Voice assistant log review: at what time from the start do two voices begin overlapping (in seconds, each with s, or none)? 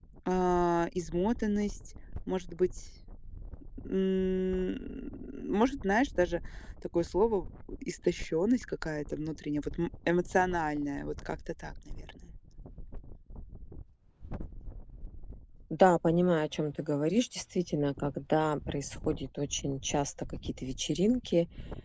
none